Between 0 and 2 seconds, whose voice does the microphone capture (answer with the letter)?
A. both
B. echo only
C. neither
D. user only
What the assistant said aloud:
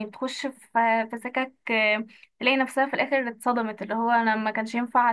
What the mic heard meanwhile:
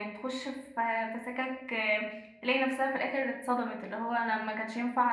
B